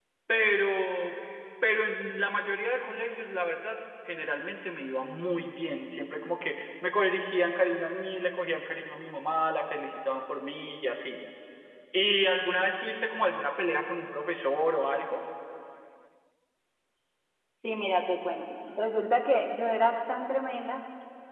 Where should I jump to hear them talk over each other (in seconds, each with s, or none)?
none